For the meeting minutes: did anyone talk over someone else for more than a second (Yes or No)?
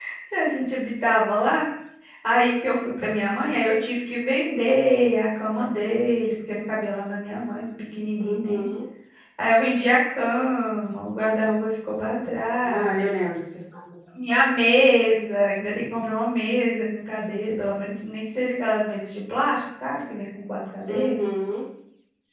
No